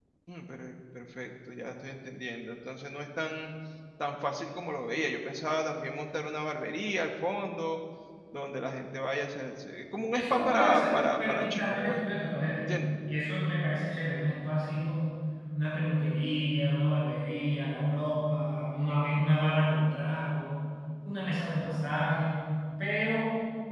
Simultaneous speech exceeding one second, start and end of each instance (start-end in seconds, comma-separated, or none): 10.1-12.0